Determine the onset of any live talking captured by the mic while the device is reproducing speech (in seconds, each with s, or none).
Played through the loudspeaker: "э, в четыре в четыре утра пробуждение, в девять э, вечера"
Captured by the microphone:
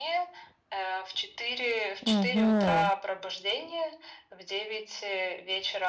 2.0 s